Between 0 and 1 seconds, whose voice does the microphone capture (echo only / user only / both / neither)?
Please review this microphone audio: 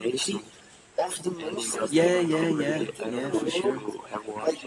echo only